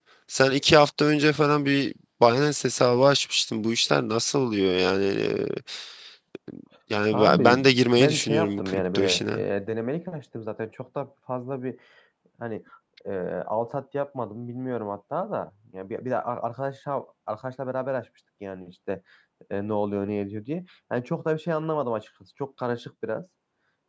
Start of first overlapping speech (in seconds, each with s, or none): 7.1 s